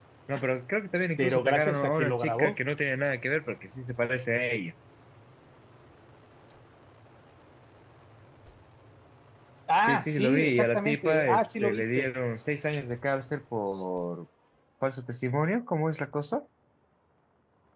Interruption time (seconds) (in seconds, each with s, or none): 1.2 s